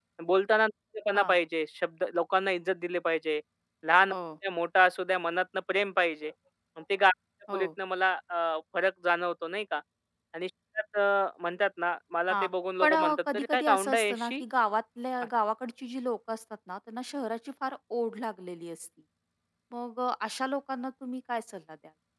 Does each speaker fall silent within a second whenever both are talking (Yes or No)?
No